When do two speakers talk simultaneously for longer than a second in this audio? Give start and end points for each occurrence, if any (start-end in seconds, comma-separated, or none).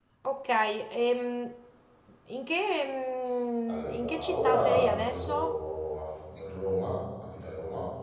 3.7-5.6